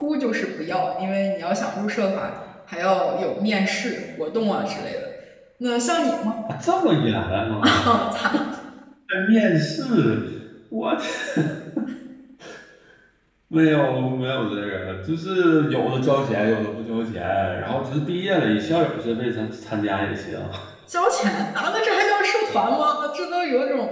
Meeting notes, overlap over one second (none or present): none